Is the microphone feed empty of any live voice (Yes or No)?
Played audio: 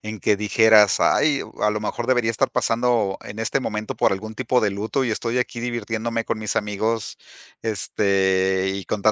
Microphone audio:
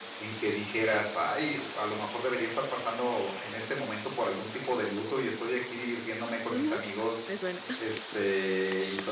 No